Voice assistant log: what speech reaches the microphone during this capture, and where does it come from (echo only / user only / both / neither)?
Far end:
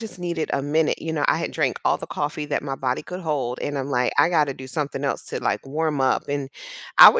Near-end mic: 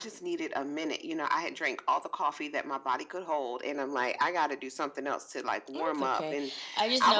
both